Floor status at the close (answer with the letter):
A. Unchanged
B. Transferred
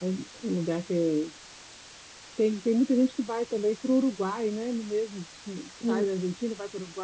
A